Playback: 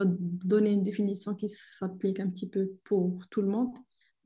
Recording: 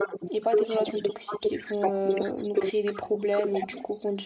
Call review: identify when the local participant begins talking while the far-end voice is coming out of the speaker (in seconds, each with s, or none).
0.3 s